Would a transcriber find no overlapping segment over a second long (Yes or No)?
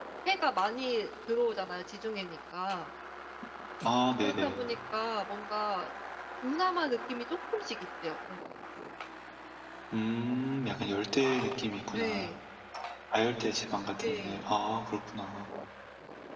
Yes